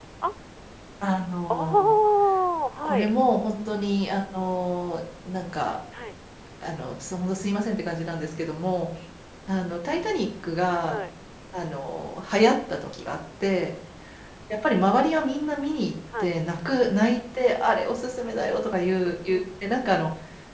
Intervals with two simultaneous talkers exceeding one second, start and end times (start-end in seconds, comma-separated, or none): none